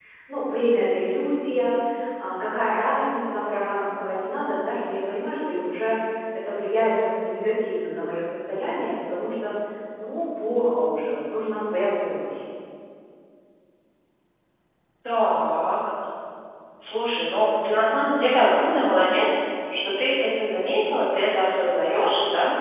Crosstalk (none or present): none